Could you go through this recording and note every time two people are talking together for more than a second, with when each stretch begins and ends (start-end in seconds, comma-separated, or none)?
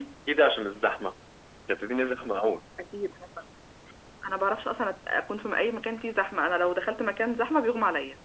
none